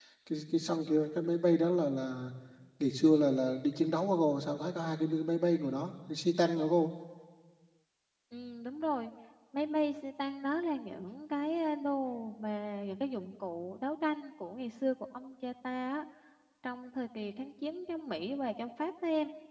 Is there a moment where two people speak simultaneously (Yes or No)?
No